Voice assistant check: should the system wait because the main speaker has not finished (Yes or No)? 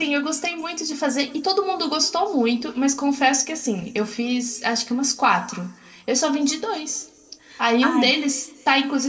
Yes